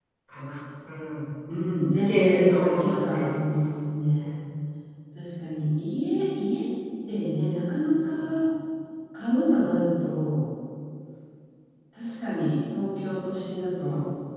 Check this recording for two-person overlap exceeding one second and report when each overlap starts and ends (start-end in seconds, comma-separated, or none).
1.9-3.4